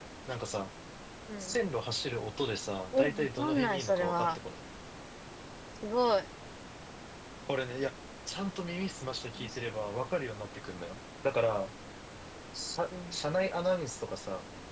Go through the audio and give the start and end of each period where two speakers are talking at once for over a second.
2.9-4.4

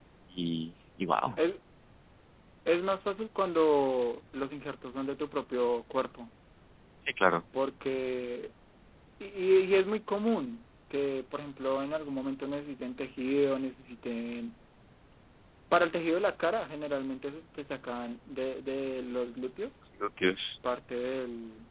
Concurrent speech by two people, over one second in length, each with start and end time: none

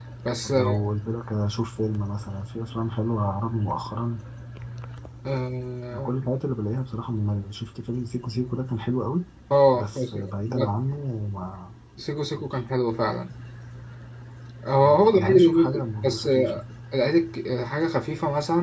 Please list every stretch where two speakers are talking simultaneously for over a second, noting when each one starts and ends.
14.8-16.6

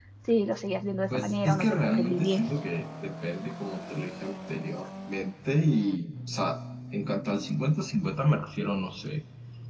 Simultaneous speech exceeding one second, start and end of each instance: 1.1-2.4

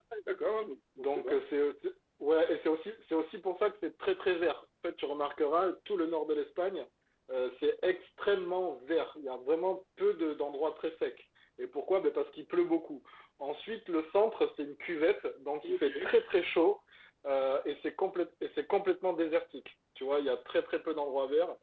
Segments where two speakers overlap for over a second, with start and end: none

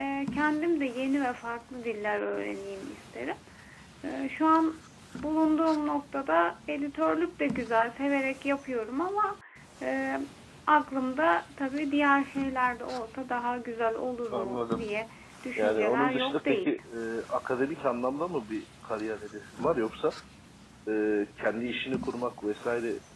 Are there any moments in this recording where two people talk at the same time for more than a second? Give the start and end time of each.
15.6-16.8

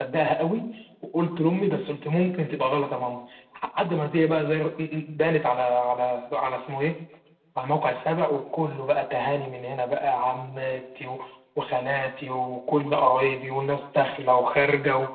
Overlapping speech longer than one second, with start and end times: none

